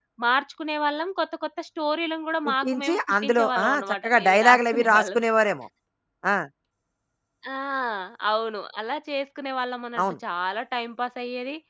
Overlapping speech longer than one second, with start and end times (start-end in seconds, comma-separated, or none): 2.4-5.2